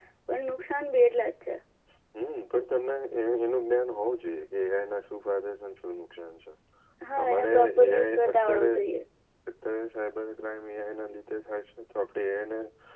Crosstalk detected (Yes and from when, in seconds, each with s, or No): Yes, from 7.2 s